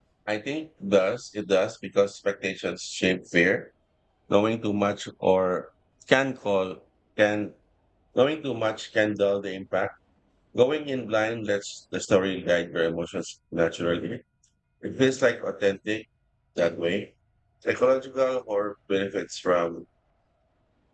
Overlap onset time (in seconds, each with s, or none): none